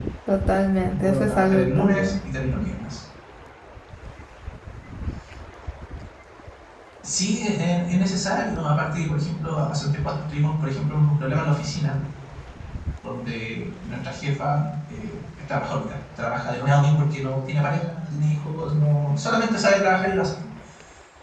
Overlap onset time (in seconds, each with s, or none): 0.9 s